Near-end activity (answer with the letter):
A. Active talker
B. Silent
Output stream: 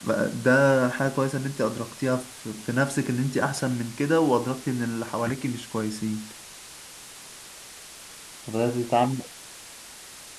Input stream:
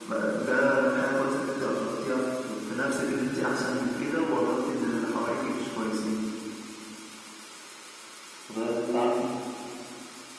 B